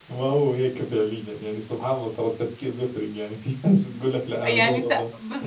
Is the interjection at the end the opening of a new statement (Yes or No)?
Yes